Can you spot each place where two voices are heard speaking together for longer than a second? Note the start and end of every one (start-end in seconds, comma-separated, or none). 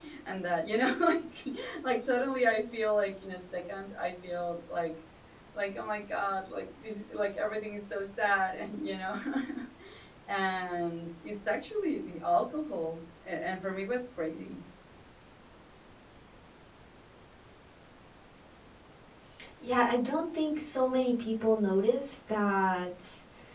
none